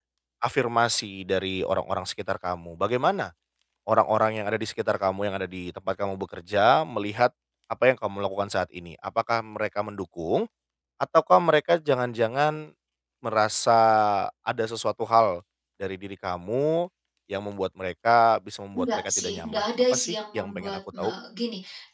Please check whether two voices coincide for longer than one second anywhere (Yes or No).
Yes